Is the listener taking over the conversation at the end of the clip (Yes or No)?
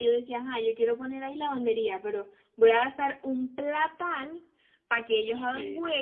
No